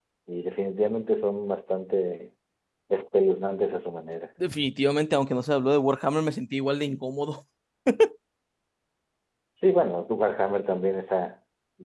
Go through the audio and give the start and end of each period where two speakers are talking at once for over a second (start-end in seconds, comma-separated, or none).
none